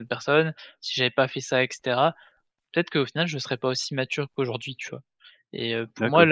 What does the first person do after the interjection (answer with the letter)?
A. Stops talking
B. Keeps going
B